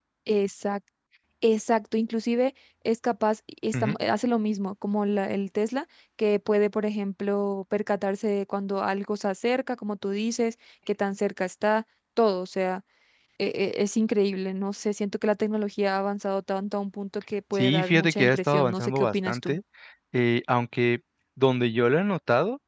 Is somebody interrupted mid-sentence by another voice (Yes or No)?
Yes